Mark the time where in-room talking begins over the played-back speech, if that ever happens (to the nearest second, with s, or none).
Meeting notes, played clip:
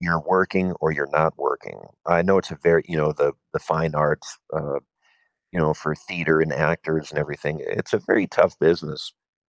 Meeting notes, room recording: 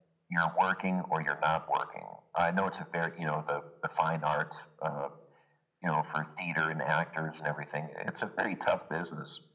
none